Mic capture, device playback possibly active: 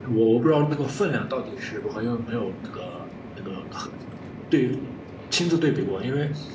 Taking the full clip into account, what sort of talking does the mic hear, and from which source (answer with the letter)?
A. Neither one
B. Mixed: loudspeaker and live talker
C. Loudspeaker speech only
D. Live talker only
D